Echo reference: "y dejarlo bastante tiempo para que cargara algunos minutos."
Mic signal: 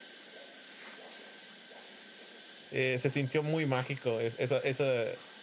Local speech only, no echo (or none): eh, se sintió muy mágico es- esa, esa,